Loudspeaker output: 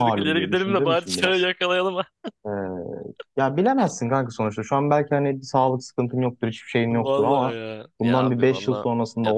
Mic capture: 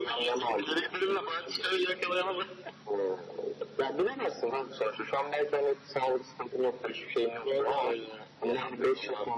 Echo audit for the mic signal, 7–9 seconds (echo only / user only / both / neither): echo only